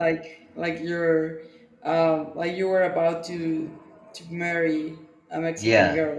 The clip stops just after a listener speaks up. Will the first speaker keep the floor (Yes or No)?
No